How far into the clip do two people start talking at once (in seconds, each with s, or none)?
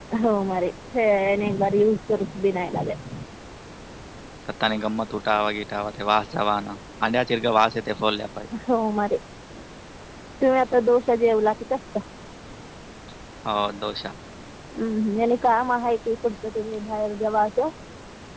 none